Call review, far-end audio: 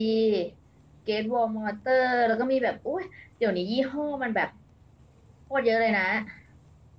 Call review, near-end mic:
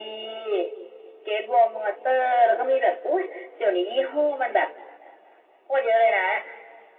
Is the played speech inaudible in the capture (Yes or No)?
No